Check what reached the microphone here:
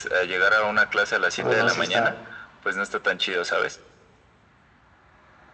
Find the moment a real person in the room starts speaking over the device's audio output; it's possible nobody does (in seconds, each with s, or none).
1.4 s